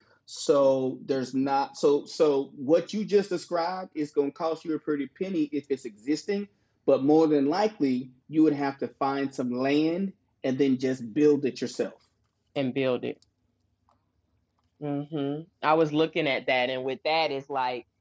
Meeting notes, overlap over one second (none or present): none